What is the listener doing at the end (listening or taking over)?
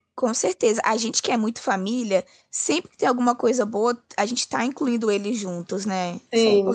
taking over